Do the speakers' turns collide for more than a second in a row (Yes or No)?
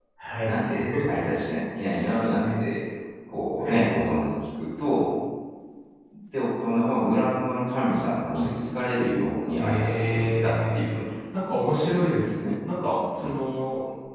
Yes